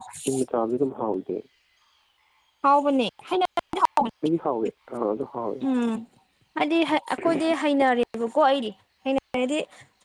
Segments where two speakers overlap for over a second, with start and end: none

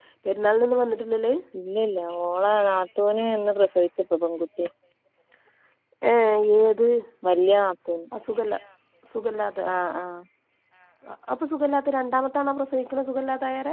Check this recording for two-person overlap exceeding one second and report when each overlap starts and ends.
none

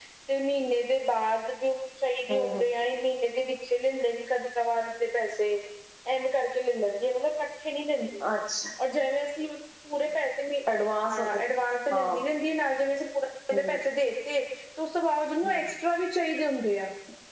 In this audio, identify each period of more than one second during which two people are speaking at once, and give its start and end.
none

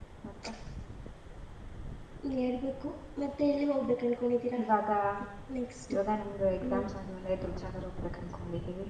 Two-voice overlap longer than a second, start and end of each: none

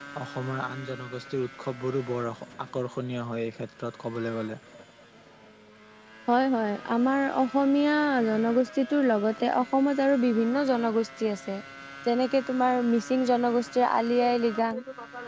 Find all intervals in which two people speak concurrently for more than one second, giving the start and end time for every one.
none

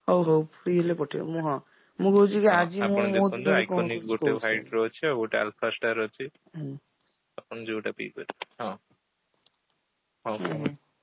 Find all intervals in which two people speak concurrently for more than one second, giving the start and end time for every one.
2.5-4.6

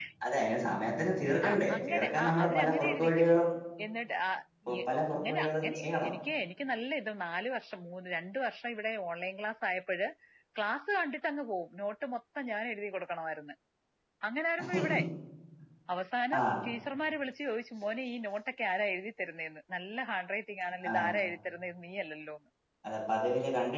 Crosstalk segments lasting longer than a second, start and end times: 1.5-3.2, 4.9-6.1

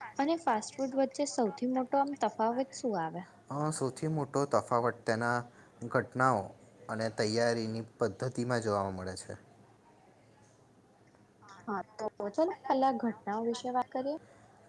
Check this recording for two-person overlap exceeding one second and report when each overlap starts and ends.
none

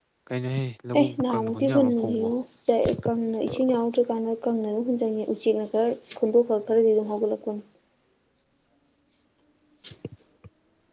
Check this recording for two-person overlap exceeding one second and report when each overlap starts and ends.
1.0-2.3

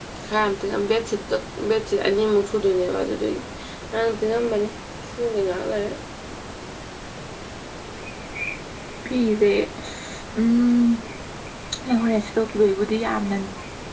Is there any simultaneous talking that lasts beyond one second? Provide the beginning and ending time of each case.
none

